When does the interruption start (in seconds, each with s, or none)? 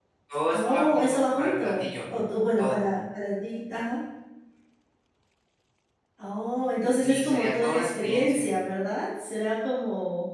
0.5 s